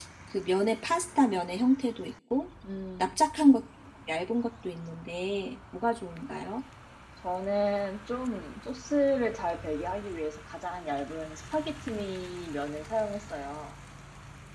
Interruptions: none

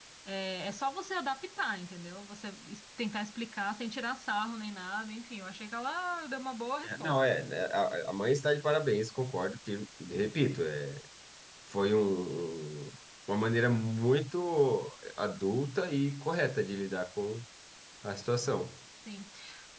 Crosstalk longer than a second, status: none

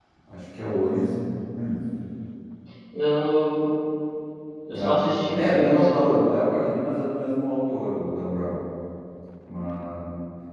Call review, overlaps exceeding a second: present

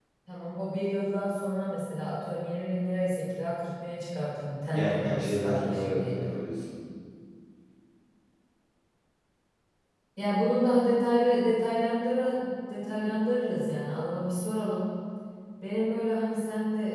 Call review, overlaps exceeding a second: present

